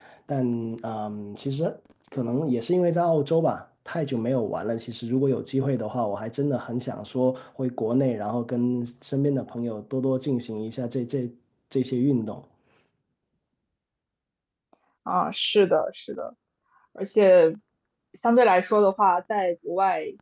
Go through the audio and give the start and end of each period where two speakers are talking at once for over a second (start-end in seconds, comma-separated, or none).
none